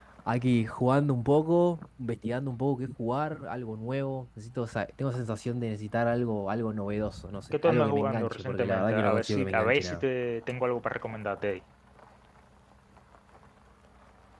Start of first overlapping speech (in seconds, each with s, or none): 7.5 s